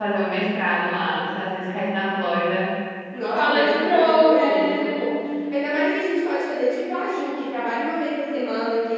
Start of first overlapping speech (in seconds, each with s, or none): 3.3 s